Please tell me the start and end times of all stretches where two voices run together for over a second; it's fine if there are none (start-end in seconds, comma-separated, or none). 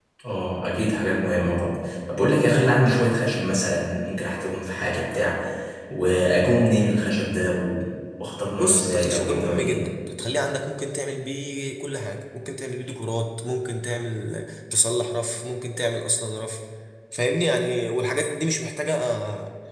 8.6-9.8